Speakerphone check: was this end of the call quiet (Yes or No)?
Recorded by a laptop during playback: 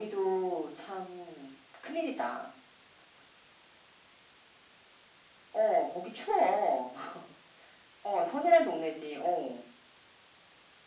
Yes